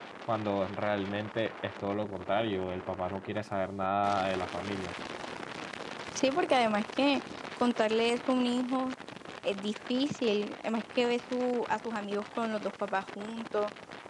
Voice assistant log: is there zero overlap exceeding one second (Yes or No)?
Yes